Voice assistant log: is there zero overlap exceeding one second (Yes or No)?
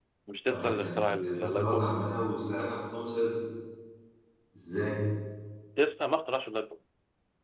No